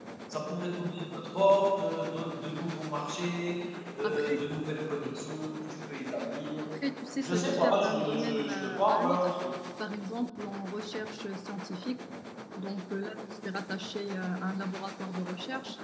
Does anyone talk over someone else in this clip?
Yes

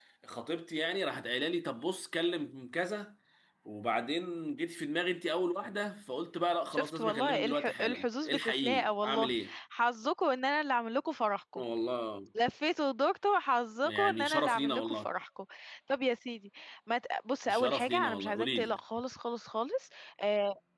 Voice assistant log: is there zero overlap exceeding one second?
No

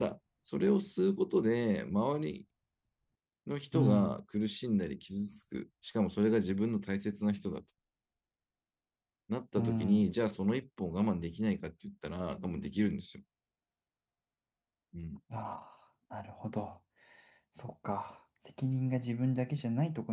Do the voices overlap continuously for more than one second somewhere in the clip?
No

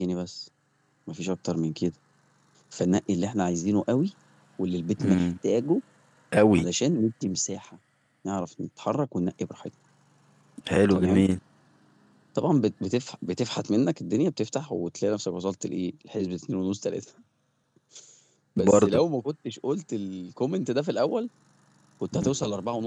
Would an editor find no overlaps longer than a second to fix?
Yes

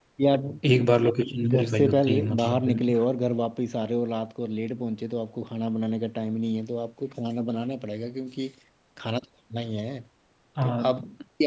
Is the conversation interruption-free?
No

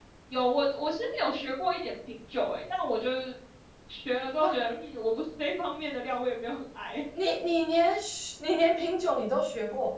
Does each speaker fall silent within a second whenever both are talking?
Yes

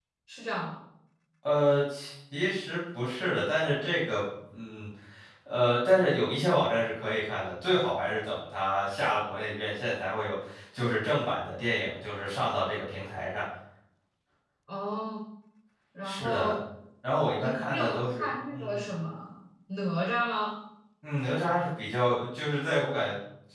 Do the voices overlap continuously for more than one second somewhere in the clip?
Yes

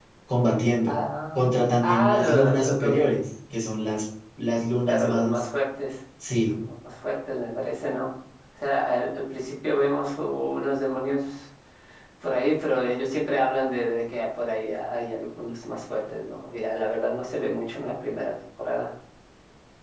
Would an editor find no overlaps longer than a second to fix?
No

